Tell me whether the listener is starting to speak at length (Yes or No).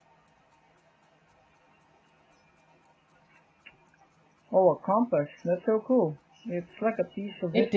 Yes